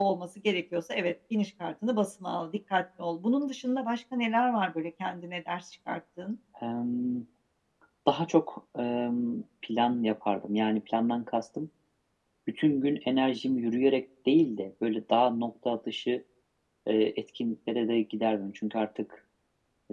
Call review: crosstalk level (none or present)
none